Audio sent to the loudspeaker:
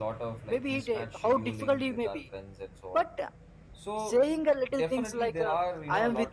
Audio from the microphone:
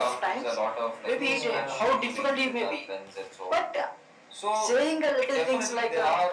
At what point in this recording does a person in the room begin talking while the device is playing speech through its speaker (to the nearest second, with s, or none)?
1 s